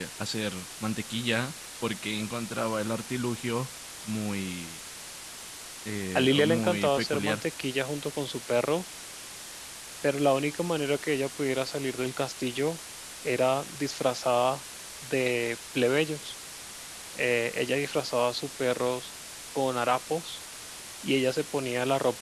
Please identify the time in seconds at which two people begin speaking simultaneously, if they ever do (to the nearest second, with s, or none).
6 s